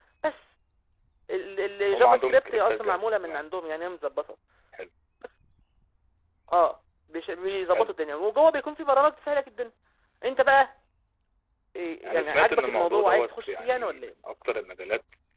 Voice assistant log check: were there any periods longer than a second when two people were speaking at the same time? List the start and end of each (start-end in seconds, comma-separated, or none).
1.9-3.4, 12.0-14.2